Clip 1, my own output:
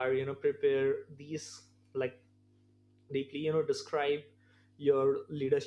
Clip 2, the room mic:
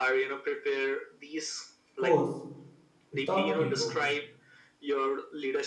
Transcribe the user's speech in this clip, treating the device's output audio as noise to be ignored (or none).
course without ego.